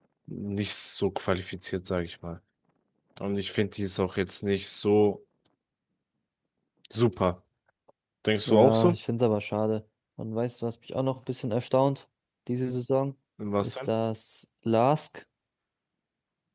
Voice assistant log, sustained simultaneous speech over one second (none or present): none